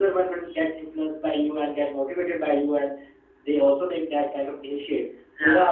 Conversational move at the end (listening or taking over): listening